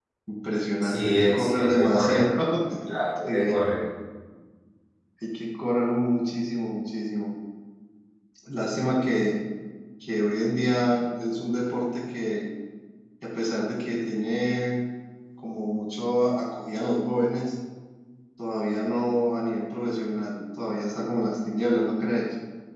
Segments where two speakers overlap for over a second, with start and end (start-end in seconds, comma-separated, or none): 0.8-2.3